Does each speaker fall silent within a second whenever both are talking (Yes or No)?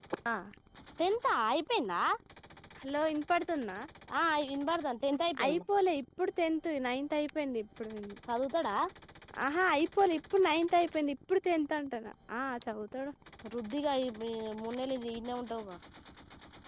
Yes